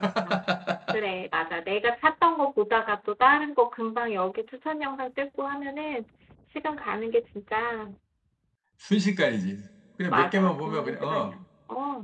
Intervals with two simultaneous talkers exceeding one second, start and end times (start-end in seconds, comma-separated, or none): 10.1-11.3